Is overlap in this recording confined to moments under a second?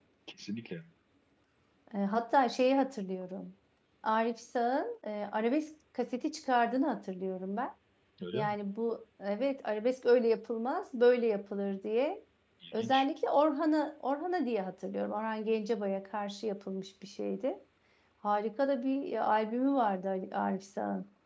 Yes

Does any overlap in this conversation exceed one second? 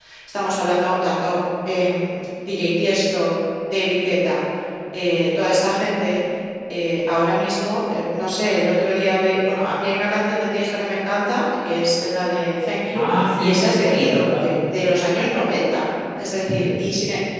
Yes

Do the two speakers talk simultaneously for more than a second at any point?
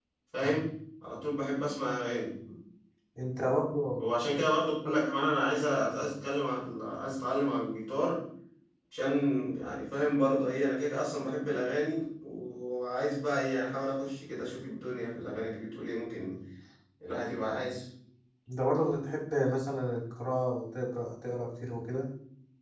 No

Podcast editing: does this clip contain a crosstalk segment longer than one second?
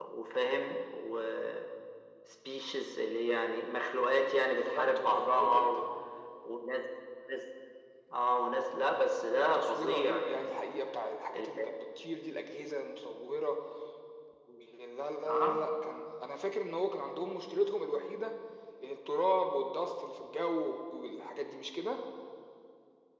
Yes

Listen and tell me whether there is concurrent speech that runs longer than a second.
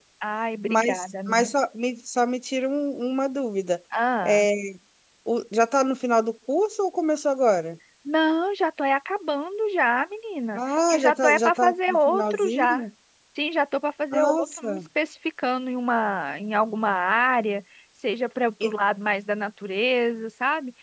Yes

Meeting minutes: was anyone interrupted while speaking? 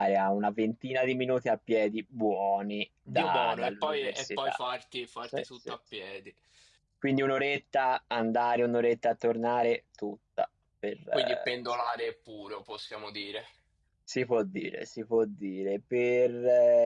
Yes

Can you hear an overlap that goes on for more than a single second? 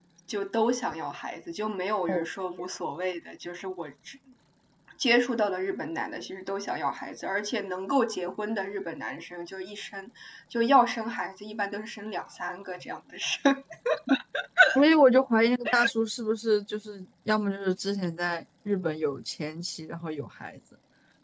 No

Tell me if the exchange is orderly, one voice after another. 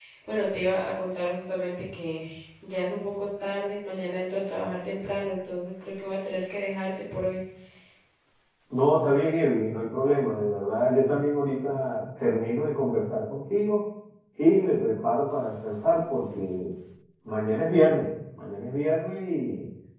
Yes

